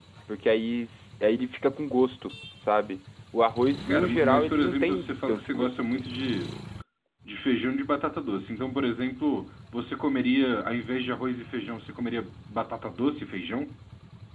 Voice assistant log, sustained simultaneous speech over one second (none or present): present